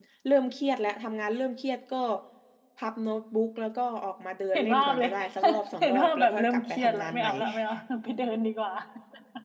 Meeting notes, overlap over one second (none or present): present